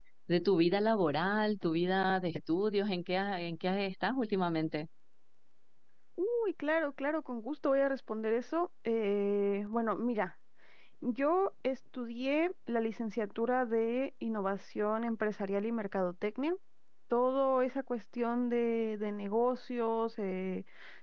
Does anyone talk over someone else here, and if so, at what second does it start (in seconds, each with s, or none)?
none